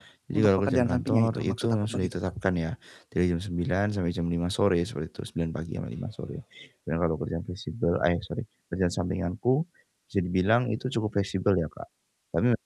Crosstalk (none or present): present